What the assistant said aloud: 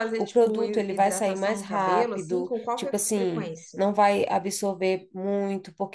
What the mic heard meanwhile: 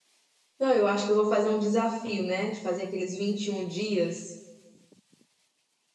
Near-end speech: present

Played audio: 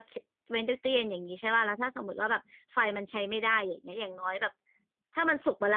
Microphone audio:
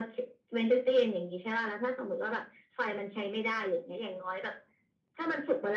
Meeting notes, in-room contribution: none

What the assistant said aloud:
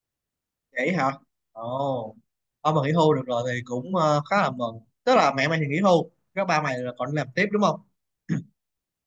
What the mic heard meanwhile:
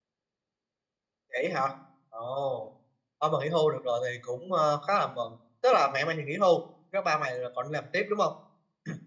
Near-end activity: none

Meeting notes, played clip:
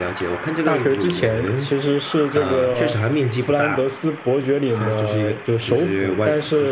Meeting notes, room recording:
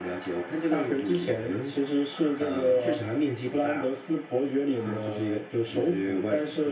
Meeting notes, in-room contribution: none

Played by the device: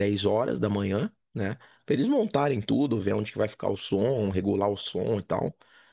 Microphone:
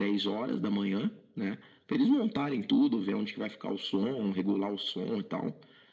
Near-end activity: none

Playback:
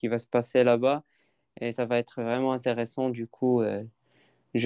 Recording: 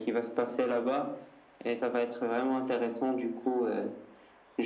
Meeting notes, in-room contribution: none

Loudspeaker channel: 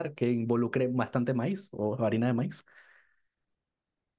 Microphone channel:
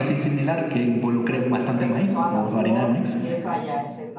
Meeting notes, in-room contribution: present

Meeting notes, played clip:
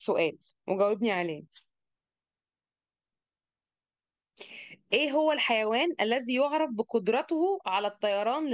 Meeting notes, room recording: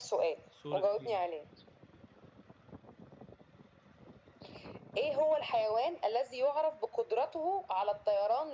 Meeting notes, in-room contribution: present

